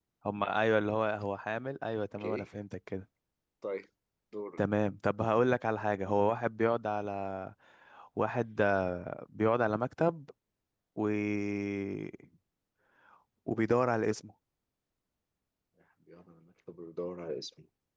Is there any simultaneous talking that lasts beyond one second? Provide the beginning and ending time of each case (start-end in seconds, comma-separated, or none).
none